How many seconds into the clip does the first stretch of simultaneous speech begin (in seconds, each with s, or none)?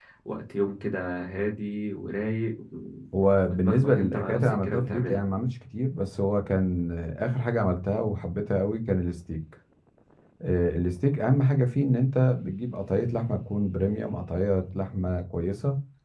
3.6 s